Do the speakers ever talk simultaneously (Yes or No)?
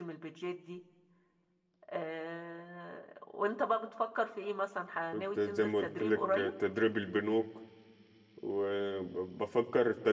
Yes